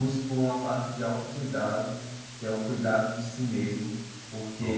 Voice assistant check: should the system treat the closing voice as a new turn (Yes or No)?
No